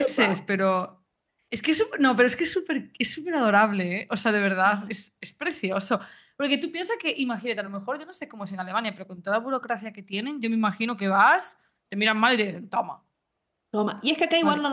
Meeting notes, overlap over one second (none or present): none